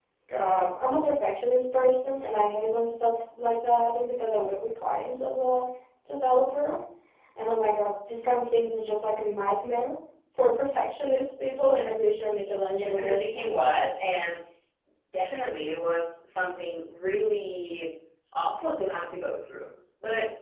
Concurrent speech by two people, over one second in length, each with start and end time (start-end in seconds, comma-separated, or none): 12.8-14.0